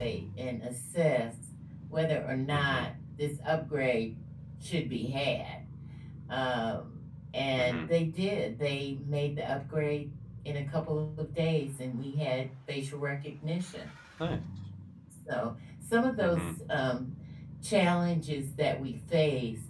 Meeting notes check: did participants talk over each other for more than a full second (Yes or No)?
No